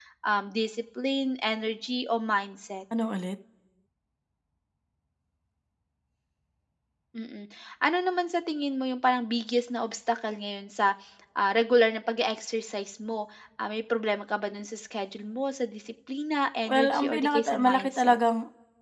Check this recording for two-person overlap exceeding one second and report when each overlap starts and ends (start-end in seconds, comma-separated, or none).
16.6-18.2